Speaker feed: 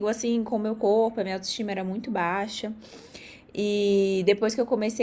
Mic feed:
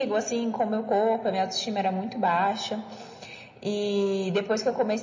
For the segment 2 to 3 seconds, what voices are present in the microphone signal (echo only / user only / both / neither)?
echo only